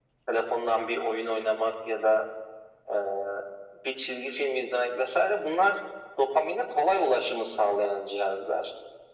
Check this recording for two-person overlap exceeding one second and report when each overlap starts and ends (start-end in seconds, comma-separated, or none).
none